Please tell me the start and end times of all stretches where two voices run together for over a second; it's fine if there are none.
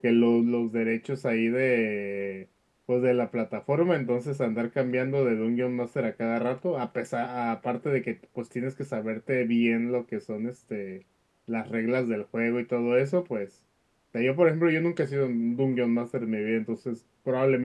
none

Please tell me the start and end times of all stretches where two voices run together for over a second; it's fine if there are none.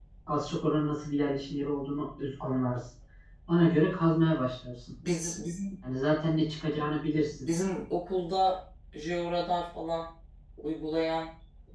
none

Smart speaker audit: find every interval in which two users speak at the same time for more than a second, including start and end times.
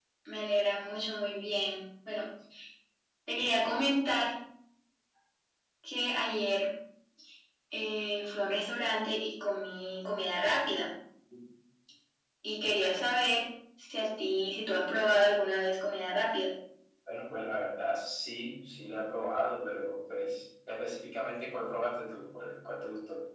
none

